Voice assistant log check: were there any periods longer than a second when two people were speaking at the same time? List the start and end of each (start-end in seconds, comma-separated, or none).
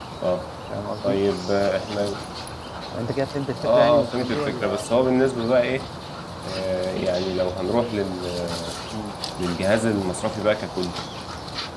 3.6-4.8